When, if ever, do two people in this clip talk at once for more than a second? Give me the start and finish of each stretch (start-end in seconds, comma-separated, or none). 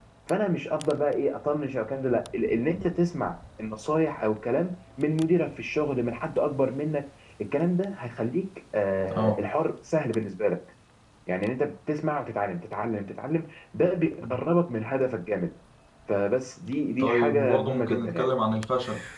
17.0-18.3